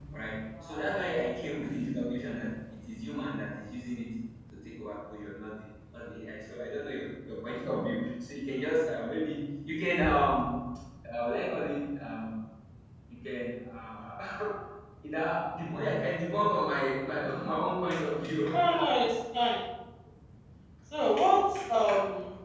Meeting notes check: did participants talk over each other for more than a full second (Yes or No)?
No